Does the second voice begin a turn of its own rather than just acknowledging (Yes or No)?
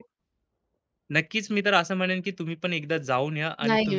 Yes